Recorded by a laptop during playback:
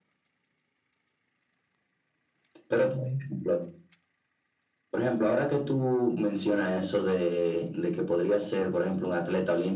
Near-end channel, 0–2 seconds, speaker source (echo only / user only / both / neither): neither